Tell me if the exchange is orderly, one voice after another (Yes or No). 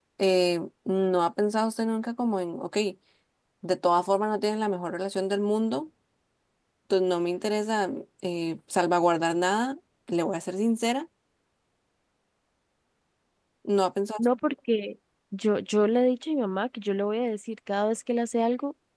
Yes